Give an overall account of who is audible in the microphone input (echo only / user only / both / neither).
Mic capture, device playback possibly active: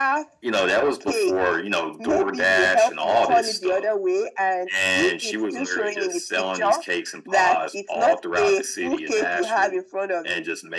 echo only